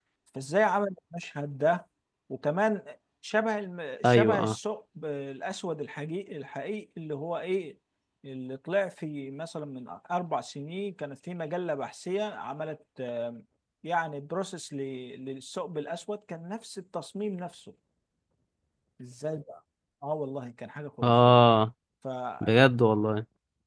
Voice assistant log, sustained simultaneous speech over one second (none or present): none